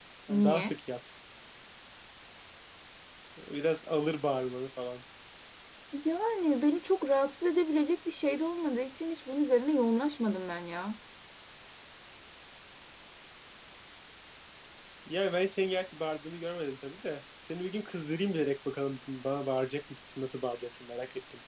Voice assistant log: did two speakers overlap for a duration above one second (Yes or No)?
No